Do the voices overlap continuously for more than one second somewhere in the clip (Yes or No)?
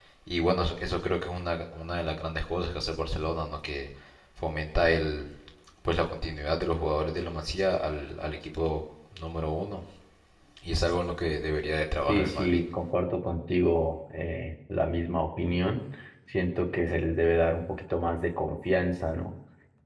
No